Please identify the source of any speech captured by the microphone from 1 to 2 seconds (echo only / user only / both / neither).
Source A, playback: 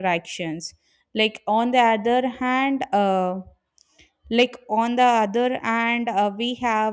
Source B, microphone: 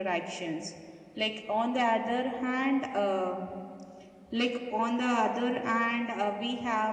echo only